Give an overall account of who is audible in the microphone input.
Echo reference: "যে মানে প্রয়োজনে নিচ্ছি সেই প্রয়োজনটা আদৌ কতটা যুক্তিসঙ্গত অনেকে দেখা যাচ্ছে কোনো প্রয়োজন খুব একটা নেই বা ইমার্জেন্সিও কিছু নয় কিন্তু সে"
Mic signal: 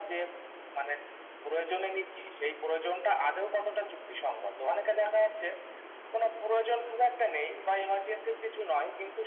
echo only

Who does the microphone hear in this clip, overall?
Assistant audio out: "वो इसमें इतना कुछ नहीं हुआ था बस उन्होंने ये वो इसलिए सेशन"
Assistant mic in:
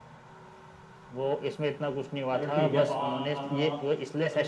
both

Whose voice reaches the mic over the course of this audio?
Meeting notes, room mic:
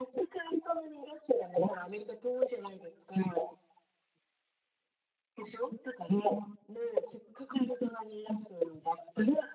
echo only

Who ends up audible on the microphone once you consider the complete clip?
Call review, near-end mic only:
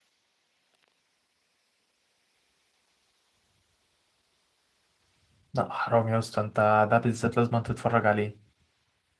user only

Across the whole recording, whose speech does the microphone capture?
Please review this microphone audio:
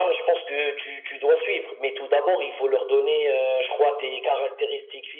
echo only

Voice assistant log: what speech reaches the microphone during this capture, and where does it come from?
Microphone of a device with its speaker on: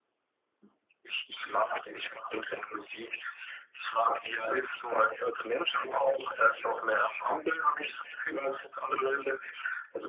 echo only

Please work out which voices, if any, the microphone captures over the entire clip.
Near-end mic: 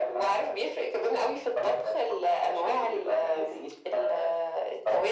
echo only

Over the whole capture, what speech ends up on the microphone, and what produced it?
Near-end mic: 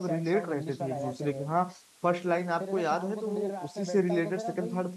both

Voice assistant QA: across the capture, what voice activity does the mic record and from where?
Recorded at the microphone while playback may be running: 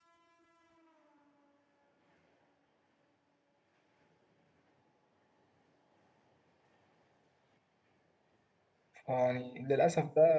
user only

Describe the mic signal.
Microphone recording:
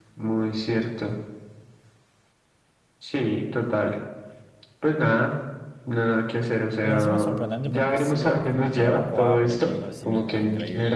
both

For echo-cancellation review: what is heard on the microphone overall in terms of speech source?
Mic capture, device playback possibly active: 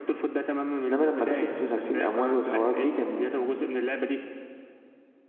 both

